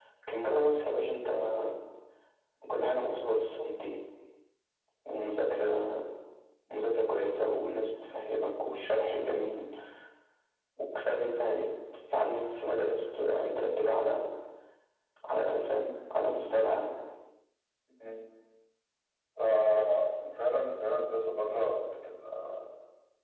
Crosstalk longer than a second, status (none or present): none